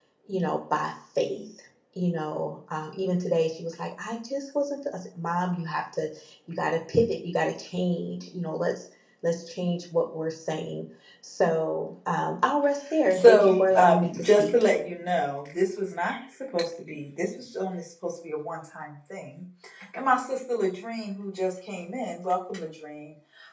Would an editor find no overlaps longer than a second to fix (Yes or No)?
No